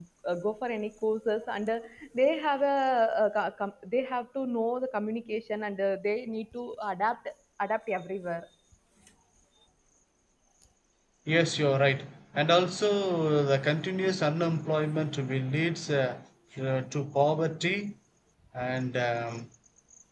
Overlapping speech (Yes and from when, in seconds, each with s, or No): No